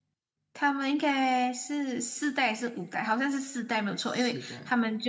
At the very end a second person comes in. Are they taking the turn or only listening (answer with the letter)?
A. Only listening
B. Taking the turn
A